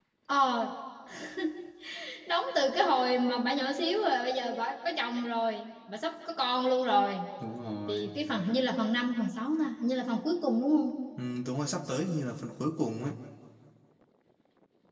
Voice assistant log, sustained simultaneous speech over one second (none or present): none